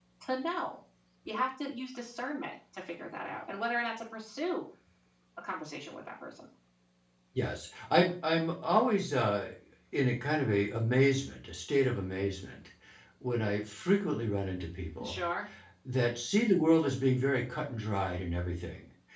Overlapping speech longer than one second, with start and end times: none

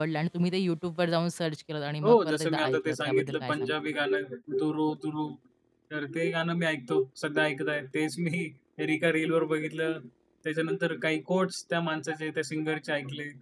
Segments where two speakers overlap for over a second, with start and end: 2.0-3.7

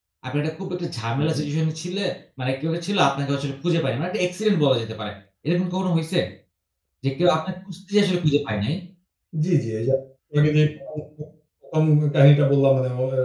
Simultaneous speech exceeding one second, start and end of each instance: none

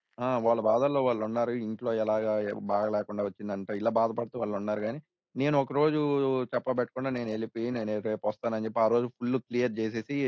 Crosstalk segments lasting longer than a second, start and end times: none

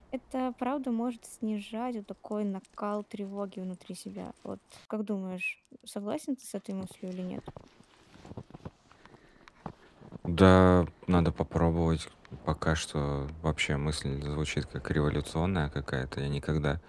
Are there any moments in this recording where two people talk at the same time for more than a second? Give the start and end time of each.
none

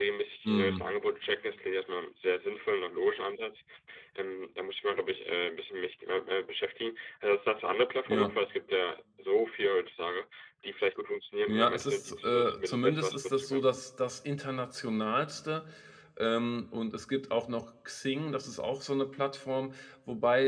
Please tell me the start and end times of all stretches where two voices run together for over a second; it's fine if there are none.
11.5-13.7

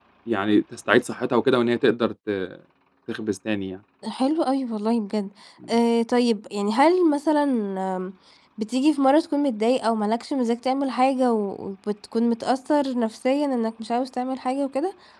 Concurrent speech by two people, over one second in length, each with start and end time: none

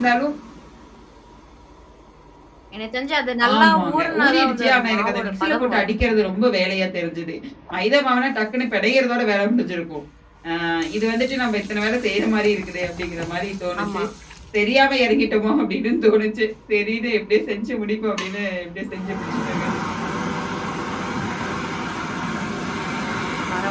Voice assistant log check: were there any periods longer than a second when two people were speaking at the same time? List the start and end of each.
3.5-6.4

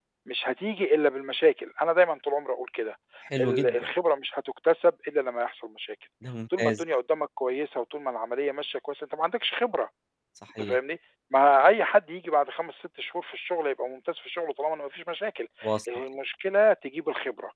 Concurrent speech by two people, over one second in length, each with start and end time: none

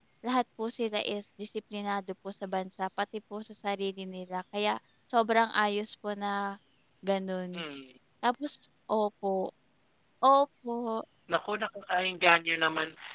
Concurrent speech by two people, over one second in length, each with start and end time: none

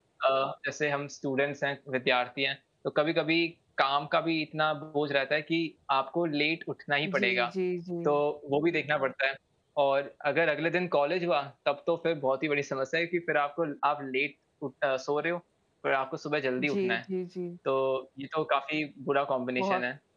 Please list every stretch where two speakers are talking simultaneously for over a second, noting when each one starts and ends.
none

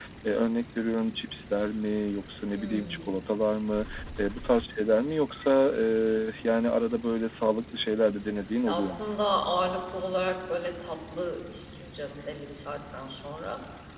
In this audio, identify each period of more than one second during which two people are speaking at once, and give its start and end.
none

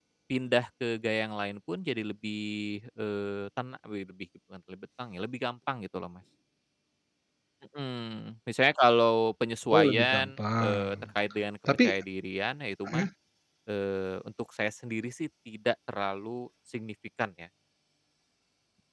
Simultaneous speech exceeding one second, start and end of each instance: 9.7-11.0

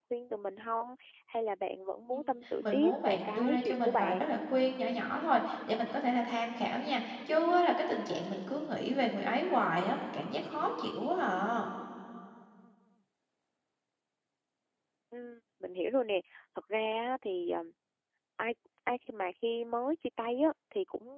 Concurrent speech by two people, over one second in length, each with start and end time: 2.6-4.3

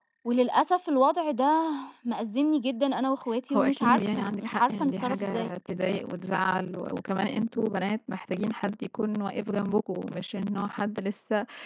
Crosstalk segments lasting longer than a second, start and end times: 3.5-5.5

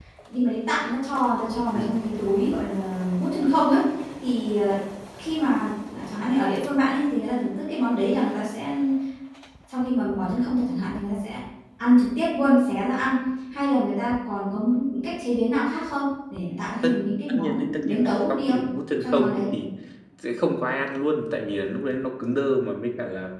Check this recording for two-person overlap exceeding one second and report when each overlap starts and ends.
17.3-18.6

